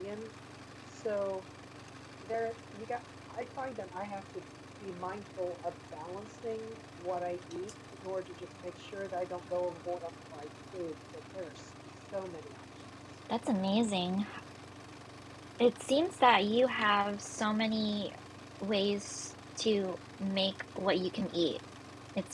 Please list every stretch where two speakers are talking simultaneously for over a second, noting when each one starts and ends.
none

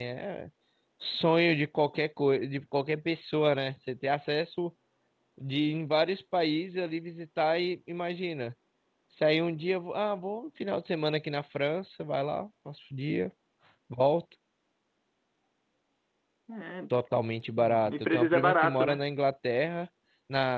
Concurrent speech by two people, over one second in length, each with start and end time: 17.6-19.0

